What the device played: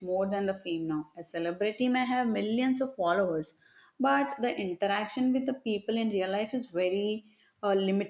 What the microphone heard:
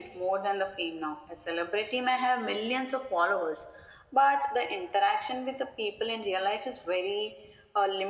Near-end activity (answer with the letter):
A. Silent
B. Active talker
A